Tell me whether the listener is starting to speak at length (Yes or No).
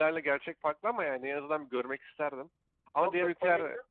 Yes